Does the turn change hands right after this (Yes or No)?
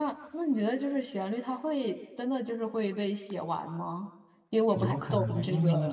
Yes